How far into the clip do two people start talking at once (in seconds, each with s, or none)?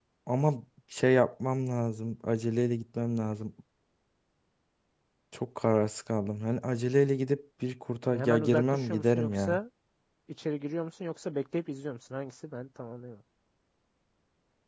8.1 s